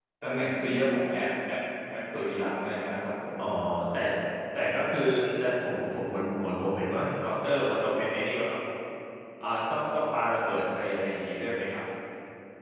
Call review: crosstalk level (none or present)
none